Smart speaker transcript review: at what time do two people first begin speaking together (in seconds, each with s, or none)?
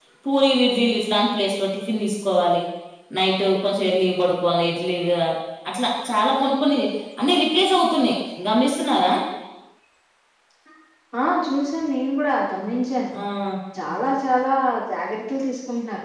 none